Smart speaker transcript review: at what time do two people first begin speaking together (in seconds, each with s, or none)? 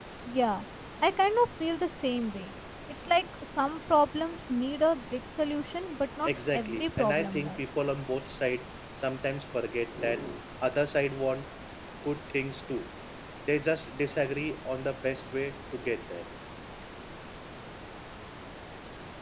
6.2 s